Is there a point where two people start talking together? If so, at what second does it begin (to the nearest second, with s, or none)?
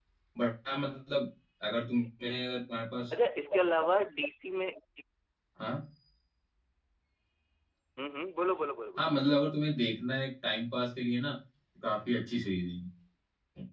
none